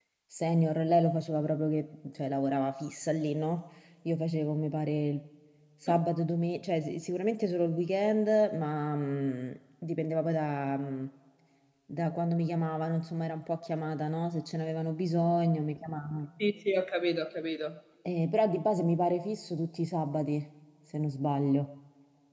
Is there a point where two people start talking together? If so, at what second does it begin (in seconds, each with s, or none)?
none